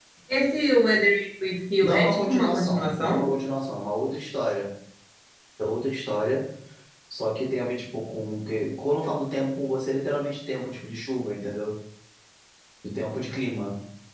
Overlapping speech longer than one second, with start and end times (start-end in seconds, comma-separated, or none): 1.8-3.3